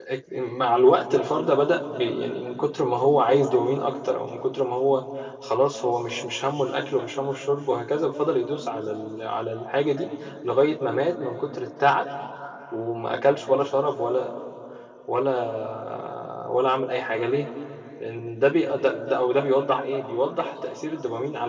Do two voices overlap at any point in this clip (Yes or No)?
No